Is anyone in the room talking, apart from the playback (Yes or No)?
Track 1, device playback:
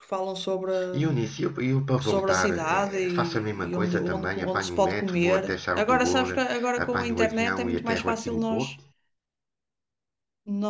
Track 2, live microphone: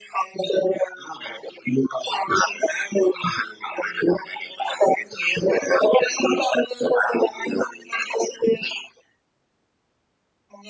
No